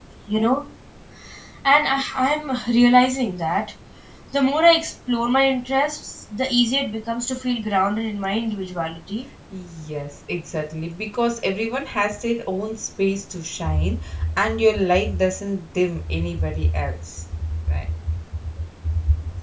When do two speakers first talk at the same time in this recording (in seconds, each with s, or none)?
none